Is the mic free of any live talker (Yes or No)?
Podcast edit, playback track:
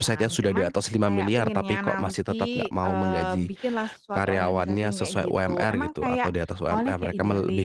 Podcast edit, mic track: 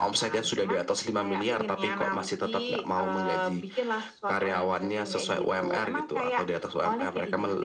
Yes